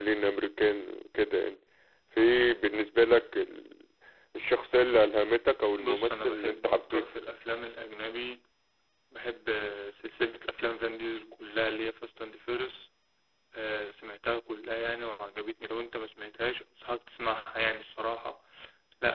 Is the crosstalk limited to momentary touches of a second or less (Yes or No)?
No